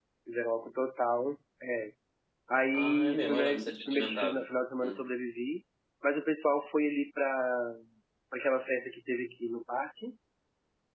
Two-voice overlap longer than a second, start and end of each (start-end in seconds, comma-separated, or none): 2.7-4.4